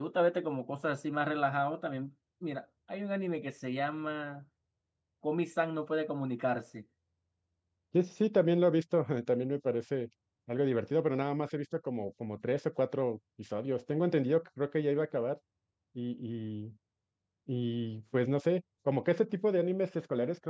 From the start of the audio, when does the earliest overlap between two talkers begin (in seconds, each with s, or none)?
none